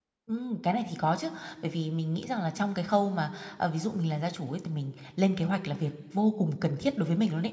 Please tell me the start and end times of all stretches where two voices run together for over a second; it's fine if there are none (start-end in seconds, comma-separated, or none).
none